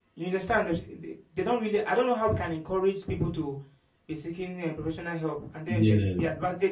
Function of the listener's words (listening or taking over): listening